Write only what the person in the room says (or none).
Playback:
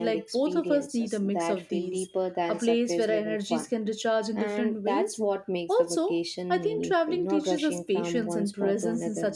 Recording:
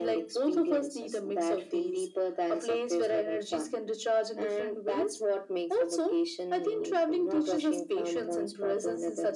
none